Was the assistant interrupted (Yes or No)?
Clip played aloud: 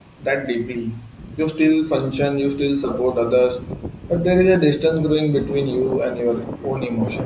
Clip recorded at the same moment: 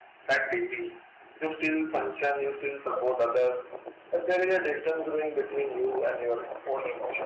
No